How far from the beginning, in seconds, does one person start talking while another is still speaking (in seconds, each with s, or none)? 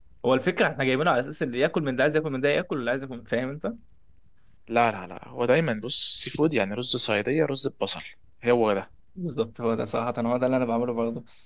none